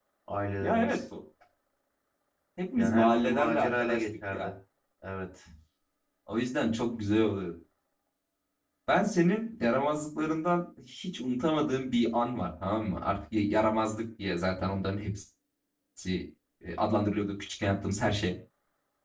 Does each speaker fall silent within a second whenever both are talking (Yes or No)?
No